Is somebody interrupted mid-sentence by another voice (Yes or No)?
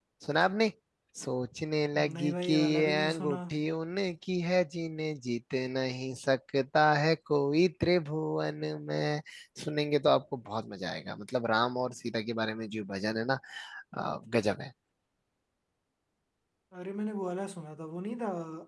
Yes